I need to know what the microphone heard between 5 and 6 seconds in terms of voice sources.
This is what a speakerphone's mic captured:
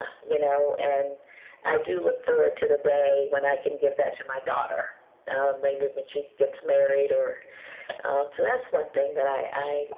echo only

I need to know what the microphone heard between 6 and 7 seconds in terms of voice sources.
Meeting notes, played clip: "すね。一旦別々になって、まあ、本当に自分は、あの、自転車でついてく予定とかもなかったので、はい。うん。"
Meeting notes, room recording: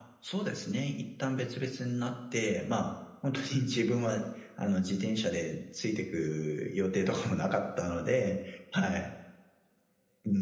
echo only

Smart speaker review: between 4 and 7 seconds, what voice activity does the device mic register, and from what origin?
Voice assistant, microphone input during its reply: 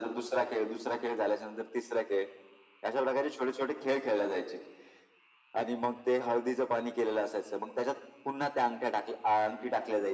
echo only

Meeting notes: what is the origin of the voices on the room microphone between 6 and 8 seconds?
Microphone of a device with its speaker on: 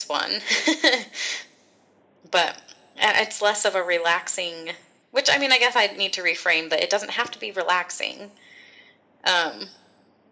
echo only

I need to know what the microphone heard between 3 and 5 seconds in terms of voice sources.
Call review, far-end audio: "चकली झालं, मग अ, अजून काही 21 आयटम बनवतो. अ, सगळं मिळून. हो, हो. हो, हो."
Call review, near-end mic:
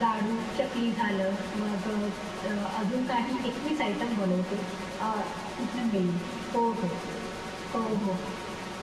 echo only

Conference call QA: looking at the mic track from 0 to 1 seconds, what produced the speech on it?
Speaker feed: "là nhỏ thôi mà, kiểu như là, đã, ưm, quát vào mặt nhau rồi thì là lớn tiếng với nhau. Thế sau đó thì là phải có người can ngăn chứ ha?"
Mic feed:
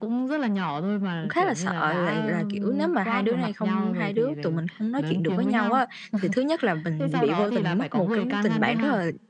echo only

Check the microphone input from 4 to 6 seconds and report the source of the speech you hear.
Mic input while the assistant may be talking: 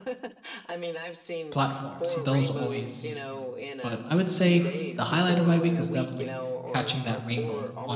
both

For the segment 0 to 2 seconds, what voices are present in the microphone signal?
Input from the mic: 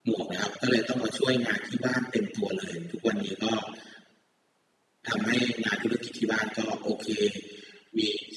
echo only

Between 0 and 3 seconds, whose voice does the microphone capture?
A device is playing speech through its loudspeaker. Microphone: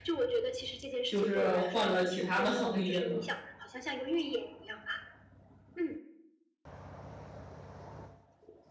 both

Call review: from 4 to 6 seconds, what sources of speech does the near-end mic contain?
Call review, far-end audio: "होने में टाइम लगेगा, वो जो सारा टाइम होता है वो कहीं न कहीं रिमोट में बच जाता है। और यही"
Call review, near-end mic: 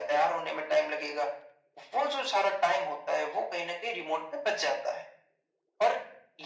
echo only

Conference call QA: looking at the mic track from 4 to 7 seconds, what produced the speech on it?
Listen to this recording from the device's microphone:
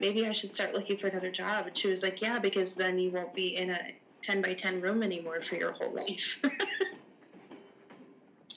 echo only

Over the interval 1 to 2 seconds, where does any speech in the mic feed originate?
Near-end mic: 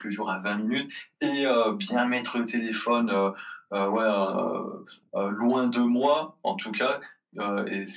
echo only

